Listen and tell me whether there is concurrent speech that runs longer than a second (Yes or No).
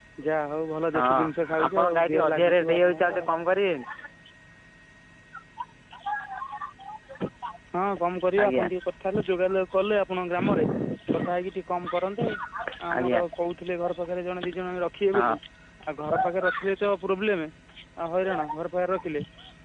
Yes